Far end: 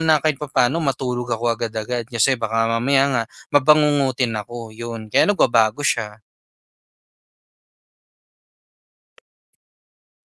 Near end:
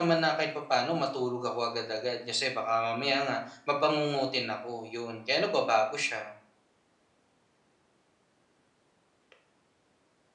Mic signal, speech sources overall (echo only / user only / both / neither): echo only